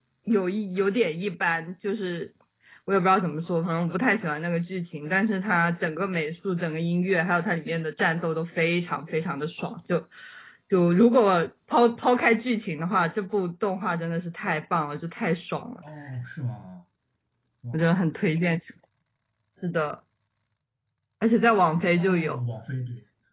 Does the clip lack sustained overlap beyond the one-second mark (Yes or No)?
Yes